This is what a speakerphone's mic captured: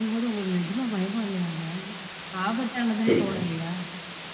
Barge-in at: 3 s

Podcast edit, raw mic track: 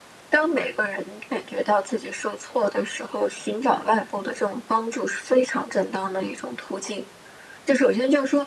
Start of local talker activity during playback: none

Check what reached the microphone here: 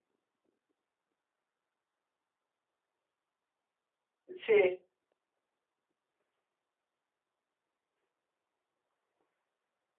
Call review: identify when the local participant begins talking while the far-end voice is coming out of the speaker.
4 s

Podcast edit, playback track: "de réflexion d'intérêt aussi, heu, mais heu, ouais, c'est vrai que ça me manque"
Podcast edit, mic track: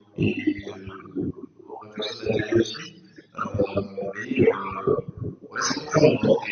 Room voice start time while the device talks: none

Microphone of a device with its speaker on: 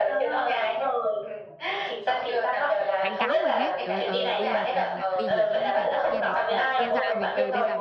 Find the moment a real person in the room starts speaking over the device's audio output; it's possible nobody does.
2 s

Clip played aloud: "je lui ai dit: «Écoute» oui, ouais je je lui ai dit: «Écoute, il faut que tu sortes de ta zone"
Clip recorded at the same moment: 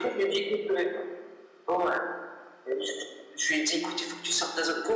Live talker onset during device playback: none

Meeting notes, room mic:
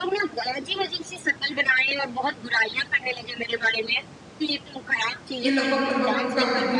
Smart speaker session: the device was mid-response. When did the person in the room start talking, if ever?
5 s

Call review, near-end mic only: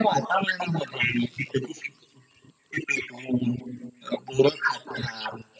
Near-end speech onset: none

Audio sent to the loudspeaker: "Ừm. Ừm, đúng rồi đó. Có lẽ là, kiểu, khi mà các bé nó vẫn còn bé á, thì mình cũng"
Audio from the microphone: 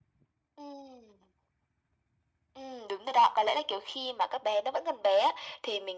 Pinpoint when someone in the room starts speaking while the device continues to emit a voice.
none

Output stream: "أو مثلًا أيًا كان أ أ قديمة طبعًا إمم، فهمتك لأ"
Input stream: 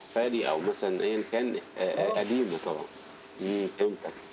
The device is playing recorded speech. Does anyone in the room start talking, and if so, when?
2 s

